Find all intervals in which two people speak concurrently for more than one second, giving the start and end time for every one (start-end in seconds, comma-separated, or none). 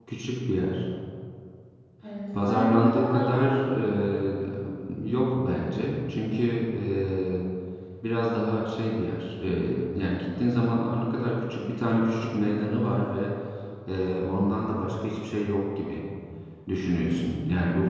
2.3-3.8